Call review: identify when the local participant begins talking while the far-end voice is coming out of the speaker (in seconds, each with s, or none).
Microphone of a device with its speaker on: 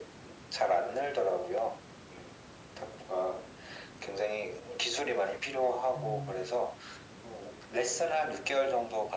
6.0 s